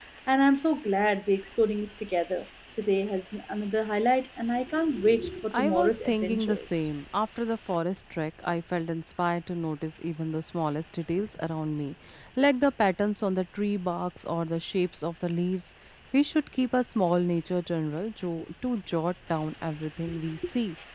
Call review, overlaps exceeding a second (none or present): present